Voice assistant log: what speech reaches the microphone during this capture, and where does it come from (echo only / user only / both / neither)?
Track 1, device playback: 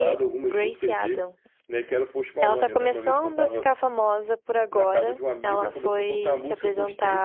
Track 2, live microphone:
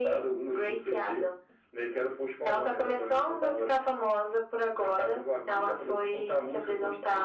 echo only